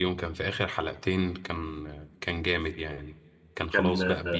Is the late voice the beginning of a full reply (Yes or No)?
No